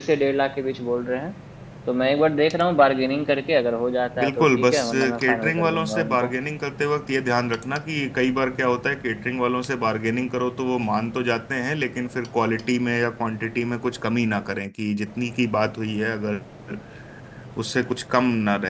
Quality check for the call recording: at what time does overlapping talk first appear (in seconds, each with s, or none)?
4.2 s